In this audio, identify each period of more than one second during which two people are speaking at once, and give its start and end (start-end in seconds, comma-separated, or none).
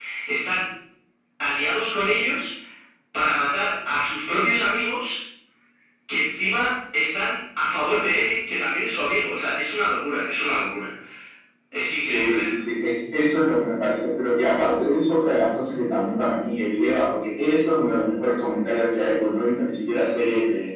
none